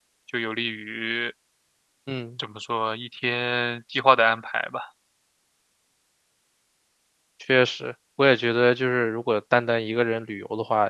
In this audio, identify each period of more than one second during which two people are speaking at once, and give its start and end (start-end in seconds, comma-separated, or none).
none